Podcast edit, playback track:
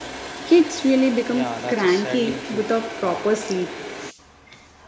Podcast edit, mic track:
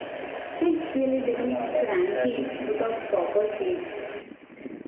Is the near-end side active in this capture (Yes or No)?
No